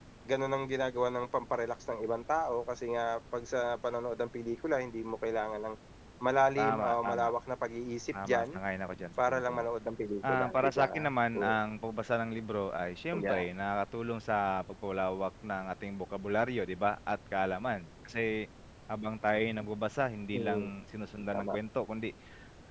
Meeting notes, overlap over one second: present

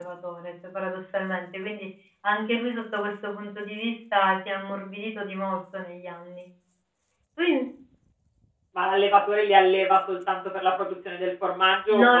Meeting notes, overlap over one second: none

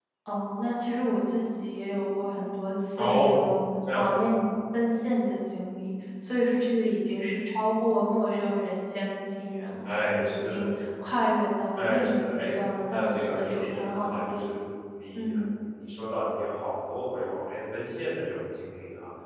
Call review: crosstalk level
present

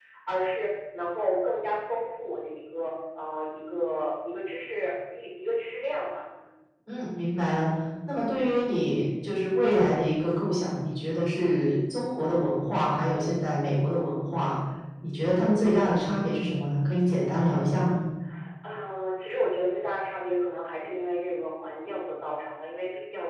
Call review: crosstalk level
none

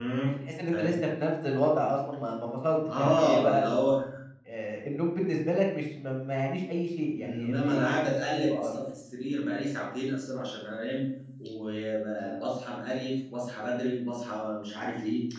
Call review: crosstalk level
present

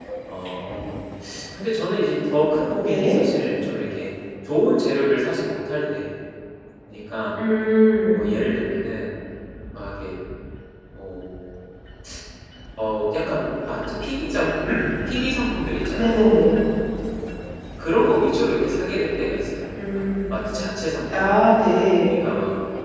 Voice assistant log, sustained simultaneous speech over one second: none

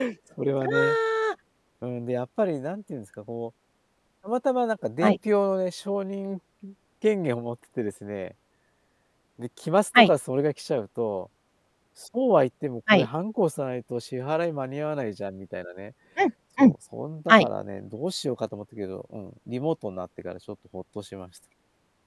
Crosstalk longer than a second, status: none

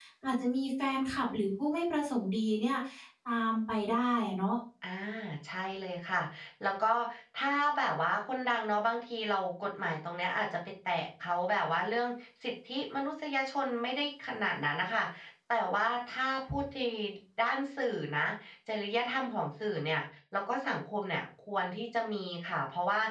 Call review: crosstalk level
none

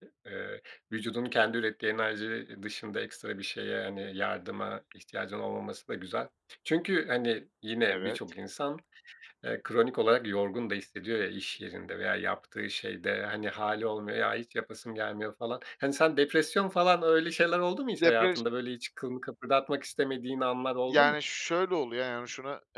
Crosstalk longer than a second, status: none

